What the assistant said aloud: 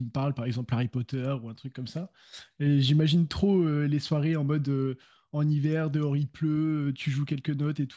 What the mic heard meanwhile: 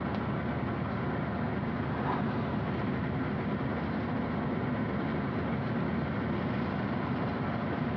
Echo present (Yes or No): No